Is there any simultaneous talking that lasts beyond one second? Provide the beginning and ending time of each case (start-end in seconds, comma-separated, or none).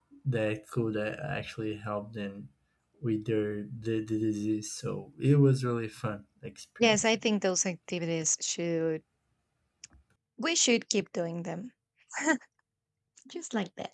none